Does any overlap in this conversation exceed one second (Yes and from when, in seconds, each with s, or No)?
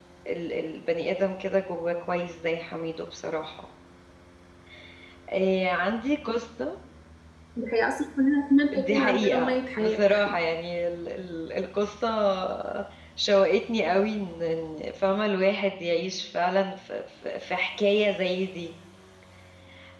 Yes, from 8.7 s